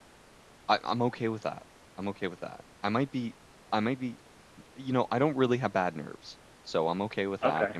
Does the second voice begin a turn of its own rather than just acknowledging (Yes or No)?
No